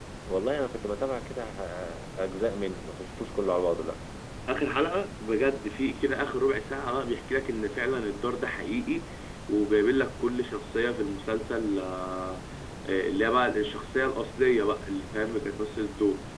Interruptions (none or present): none